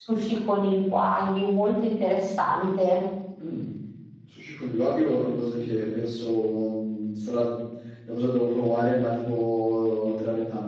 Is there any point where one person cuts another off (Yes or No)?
No